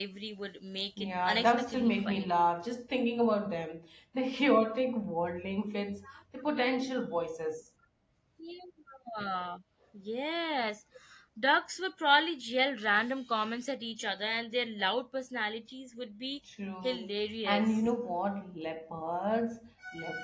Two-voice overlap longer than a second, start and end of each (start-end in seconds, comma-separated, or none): 1.0-2.3